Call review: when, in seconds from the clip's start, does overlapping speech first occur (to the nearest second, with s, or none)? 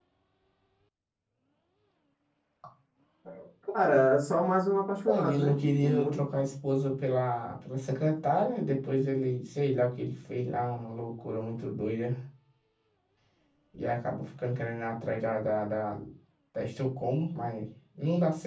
5 s